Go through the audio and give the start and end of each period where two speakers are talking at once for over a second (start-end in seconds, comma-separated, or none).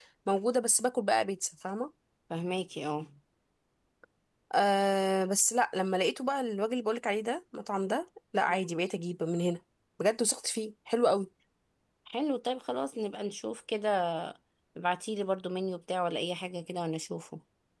none